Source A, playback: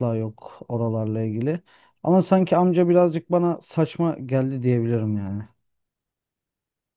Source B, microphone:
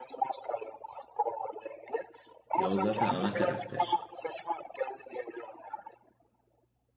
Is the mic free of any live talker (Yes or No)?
No